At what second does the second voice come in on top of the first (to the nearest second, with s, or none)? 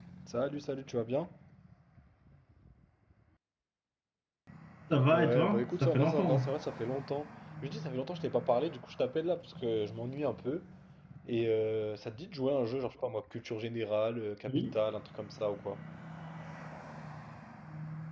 5 s